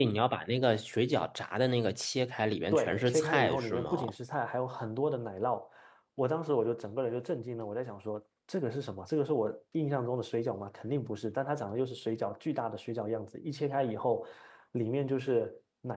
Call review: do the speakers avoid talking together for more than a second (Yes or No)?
No